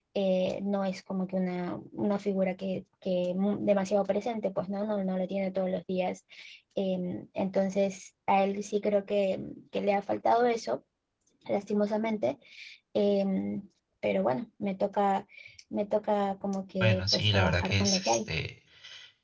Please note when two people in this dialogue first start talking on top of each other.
16.8 s

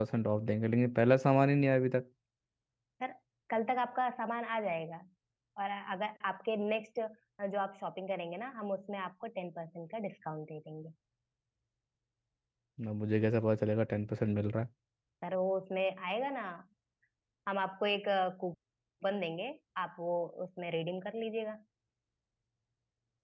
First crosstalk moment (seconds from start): none

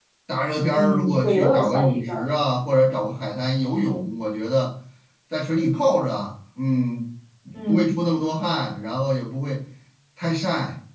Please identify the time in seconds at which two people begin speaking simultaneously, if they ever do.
0.7 s

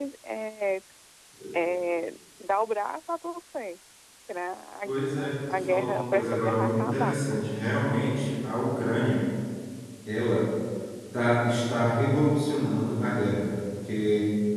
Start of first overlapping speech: 4.8 s

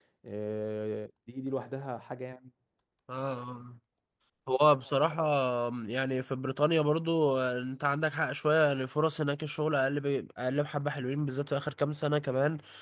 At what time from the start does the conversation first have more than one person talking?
none

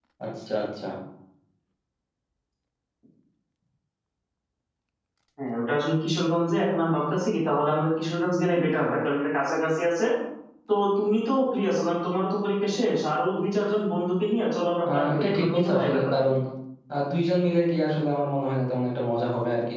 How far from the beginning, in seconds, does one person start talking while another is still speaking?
14.9 s

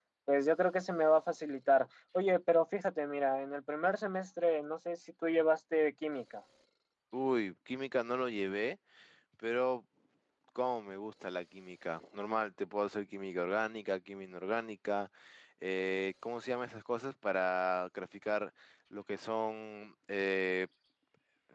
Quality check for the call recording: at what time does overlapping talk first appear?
none

